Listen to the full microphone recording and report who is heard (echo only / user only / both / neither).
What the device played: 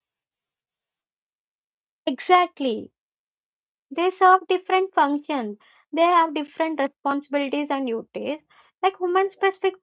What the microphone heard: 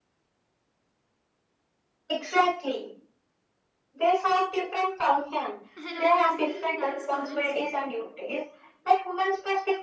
both